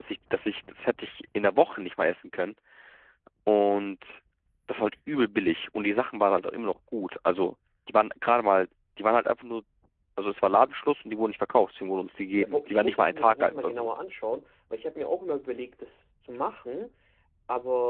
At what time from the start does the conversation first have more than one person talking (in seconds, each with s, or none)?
12.4 s